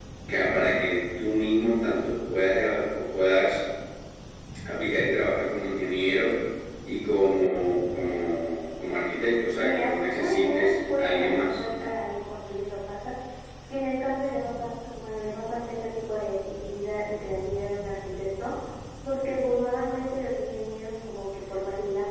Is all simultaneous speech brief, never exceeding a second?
No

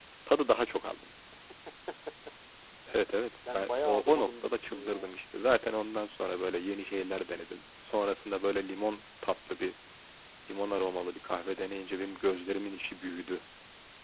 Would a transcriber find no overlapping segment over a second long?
No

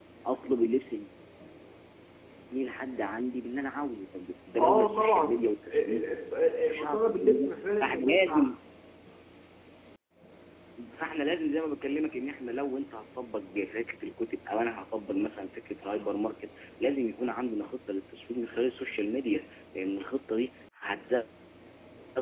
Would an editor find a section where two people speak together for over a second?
Yes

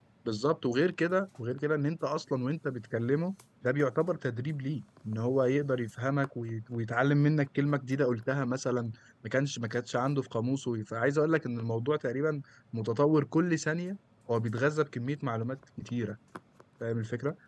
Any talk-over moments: No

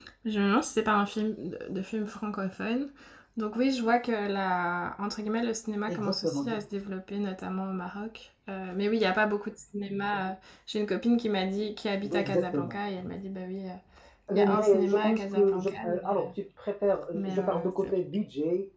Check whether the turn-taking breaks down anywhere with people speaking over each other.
Yes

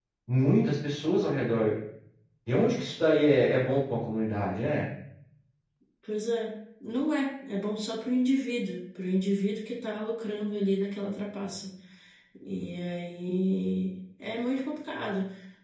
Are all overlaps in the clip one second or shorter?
Yes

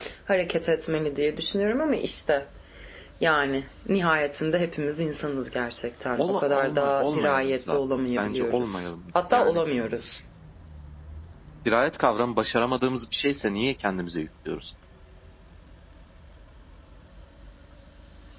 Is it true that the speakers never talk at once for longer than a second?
No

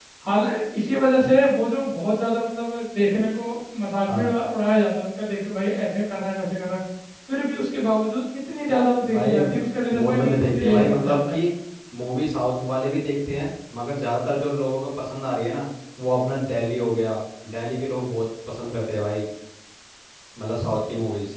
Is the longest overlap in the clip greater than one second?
Yes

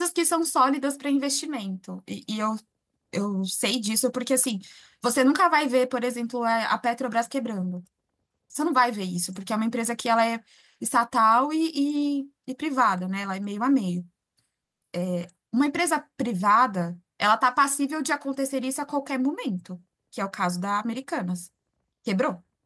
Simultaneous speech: No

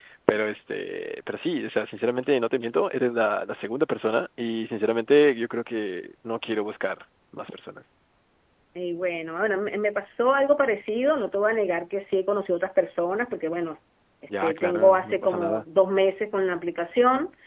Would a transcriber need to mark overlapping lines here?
Yes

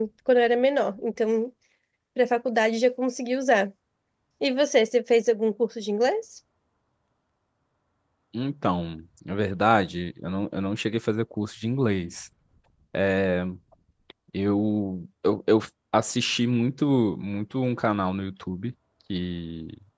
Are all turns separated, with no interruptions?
Yes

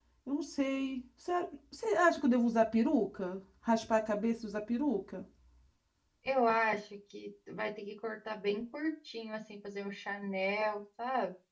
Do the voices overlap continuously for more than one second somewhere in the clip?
No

